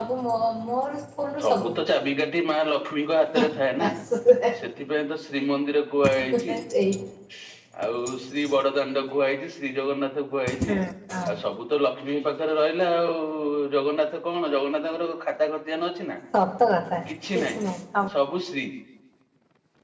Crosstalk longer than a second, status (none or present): none